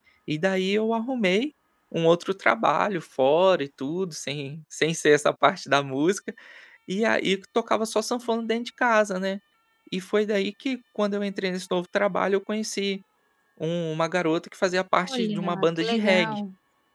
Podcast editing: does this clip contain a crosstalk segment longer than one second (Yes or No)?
Yes